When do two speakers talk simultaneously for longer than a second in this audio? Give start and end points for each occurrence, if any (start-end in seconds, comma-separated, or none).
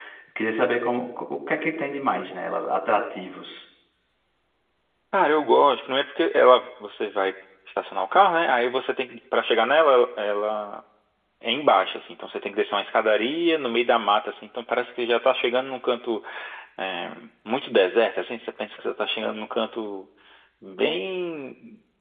none